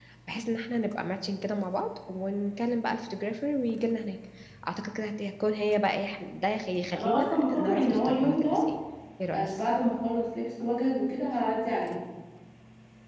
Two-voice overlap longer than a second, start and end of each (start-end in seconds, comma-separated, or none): 7.0-8.7